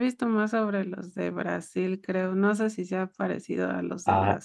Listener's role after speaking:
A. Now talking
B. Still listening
A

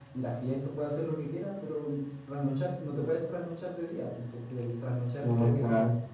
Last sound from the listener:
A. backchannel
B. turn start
A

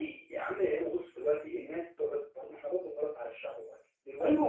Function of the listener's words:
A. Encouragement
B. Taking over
B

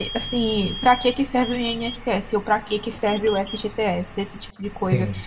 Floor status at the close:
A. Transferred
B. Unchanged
B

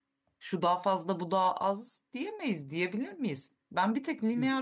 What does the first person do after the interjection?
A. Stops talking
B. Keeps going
B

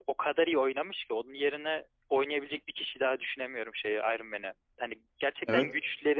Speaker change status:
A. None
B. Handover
A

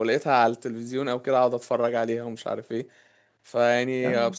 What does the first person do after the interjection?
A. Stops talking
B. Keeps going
B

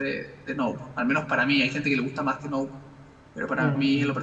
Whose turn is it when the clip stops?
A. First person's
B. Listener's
B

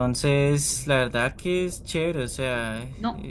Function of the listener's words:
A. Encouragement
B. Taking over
B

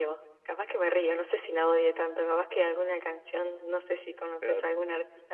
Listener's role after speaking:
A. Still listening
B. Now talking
A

